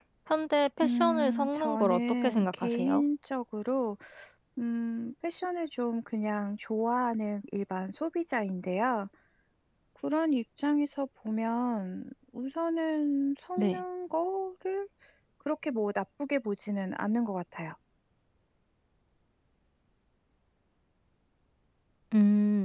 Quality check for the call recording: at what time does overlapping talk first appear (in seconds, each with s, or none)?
0.8 s